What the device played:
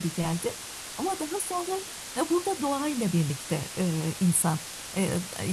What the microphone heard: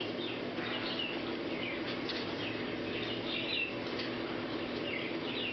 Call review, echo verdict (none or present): none